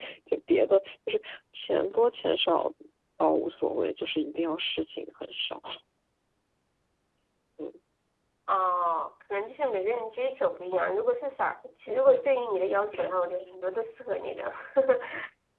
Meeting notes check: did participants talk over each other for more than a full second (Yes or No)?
No